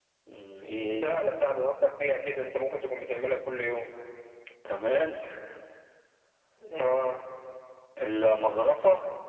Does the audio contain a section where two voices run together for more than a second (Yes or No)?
No